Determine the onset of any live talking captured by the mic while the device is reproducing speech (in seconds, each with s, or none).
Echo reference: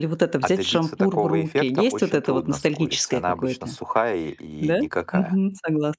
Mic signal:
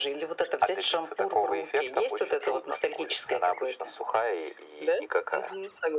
none